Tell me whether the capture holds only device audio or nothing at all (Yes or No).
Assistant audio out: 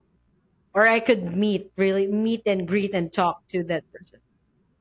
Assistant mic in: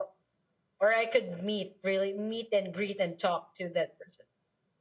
Yes